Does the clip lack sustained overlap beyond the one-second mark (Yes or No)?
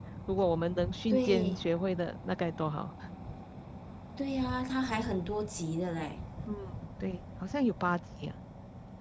Yes